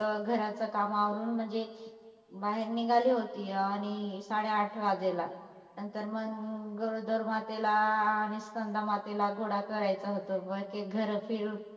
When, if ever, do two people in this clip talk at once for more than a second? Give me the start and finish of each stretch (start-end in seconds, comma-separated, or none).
none